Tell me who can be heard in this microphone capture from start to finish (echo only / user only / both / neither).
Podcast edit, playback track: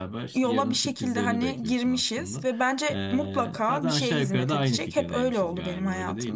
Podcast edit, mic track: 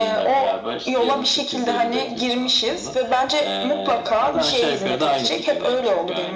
echo only